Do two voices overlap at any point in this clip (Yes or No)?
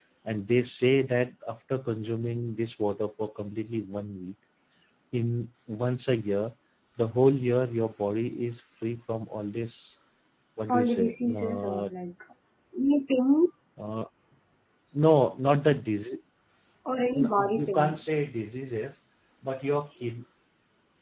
Yes